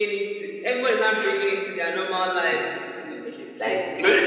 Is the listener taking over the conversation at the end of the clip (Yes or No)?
Yes